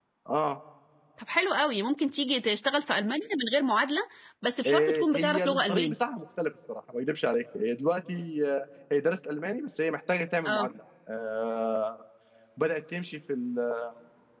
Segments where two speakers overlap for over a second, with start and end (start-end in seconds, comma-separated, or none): 4.6-5.9